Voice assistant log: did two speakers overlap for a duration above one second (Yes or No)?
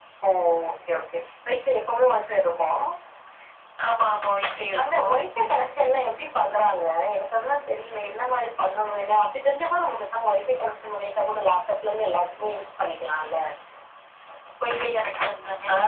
No